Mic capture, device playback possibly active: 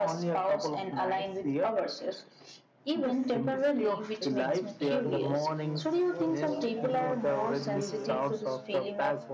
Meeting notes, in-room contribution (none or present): present